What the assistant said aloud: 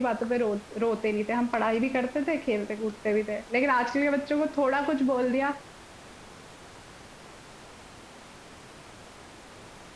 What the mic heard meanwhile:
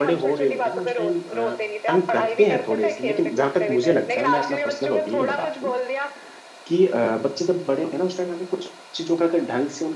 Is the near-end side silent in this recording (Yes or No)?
No